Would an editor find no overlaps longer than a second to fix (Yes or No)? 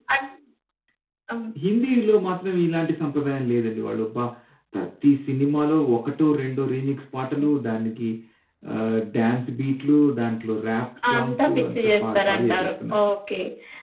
No